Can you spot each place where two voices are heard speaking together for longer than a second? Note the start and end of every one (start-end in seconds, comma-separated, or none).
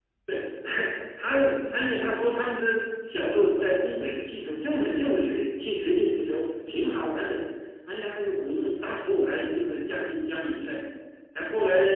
none